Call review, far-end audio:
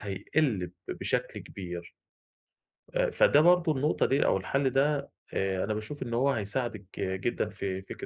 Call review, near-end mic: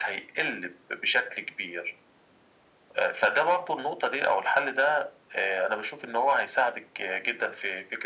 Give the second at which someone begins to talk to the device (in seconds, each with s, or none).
none